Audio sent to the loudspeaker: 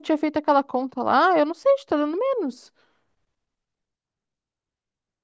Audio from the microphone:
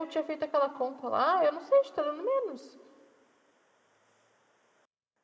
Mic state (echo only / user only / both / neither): echo only